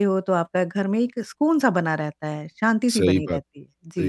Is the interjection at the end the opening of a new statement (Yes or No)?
Yes